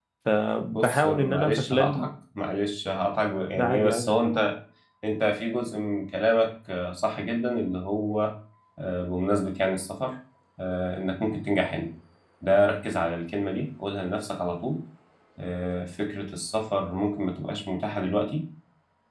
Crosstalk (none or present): present